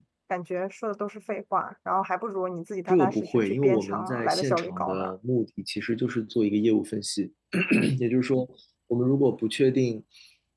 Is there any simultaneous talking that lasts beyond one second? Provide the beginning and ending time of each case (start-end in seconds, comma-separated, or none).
2.9-5.0